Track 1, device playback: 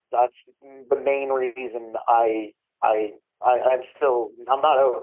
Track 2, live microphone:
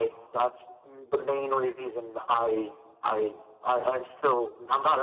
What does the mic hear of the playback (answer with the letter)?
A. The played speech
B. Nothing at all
A